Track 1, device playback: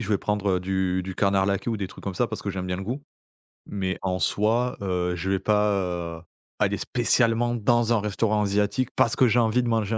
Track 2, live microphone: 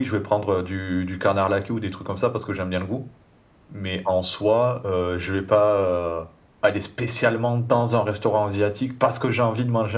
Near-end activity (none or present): none